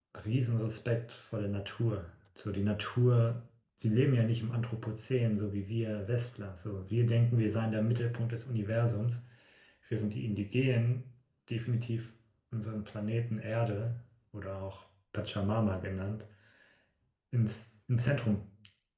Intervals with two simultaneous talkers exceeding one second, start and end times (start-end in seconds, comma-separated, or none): none